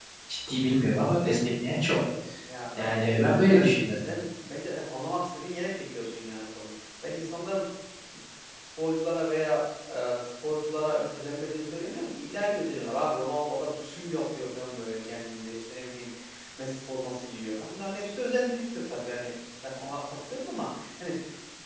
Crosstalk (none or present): present